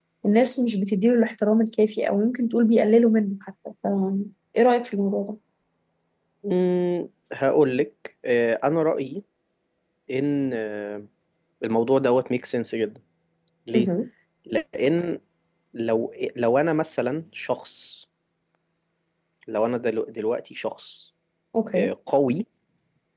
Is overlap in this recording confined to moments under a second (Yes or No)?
Yes